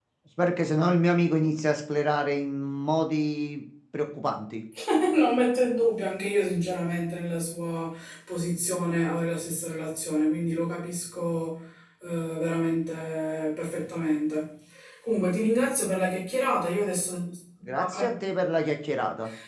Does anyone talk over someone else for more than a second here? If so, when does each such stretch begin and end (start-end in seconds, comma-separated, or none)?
none